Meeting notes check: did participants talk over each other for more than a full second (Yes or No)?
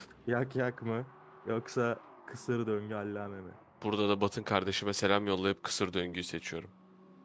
No